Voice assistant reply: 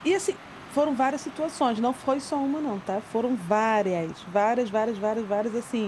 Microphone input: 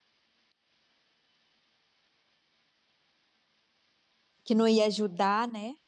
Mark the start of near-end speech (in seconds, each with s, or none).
4.4 s